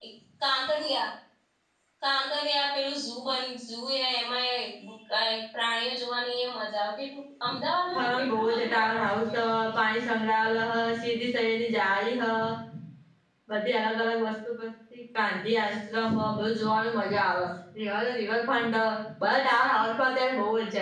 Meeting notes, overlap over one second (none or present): present